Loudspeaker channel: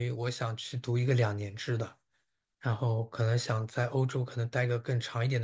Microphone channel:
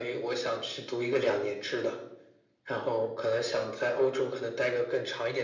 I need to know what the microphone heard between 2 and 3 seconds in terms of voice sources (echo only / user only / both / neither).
echo only